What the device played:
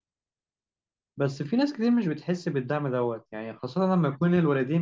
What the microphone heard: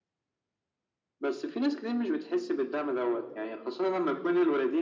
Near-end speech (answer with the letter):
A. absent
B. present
A